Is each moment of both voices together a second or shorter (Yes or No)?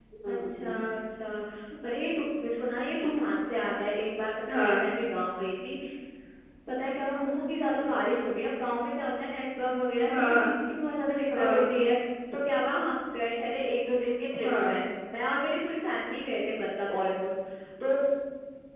Yes